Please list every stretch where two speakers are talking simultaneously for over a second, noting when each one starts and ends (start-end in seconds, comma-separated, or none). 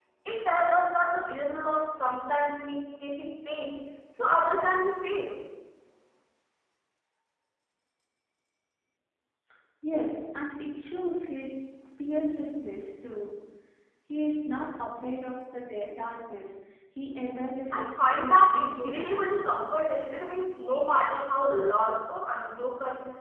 17.7-19.4